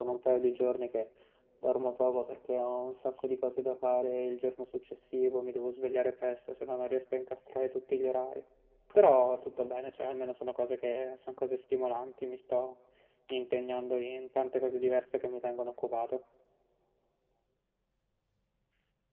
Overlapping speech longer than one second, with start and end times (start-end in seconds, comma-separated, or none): none